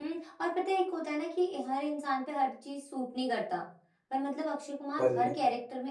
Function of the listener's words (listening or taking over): listening